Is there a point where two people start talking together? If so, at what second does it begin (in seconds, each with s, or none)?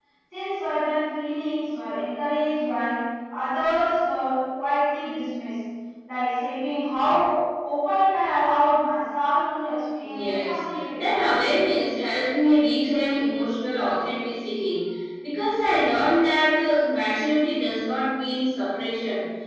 10.0 s